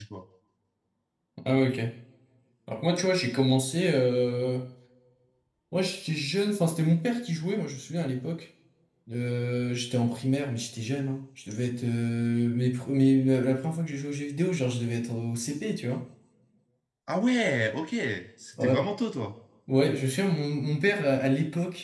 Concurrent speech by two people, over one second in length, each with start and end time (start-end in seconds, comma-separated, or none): none